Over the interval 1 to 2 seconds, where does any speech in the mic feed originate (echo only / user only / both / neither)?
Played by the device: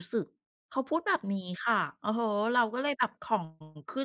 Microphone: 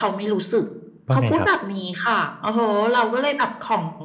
both